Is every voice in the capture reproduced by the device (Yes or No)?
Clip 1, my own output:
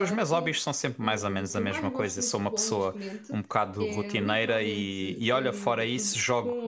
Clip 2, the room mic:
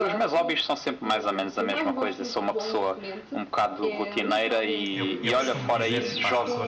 No